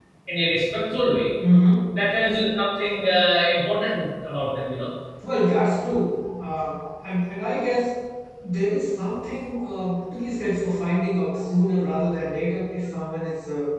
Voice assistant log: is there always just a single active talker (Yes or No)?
Yes